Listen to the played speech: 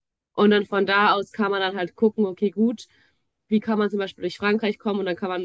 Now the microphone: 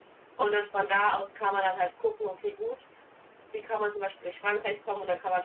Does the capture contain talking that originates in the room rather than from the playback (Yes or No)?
No